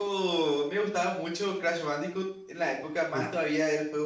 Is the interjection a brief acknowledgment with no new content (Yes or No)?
Yes